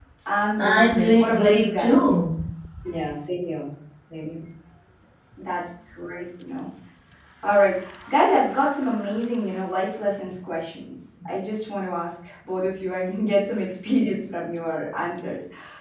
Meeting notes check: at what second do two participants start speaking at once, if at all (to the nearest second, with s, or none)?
1 s